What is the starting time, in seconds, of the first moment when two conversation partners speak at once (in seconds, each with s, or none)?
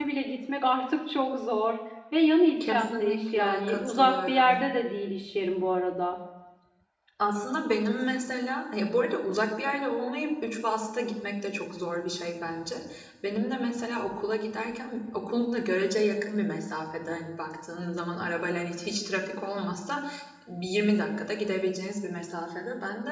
2.6 s